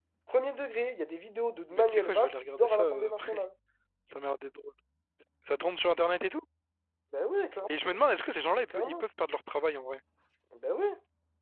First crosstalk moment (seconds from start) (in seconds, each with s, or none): 1.7 s